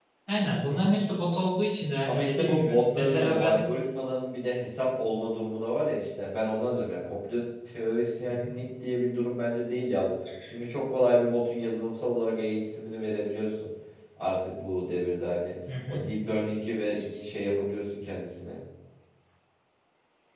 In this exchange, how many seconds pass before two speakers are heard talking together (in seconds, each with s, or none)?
2.1 s